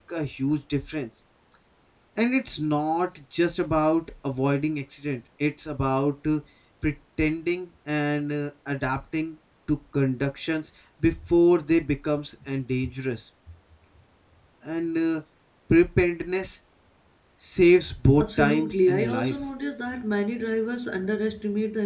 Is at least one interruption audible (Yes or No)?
Yes